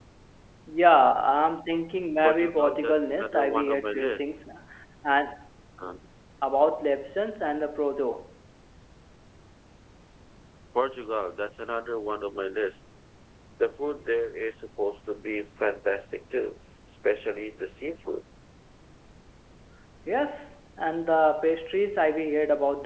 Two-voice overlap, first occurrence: 2 s

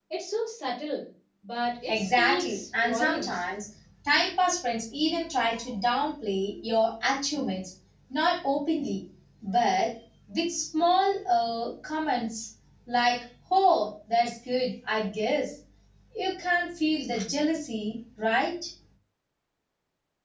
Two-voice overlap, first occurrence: 2 s

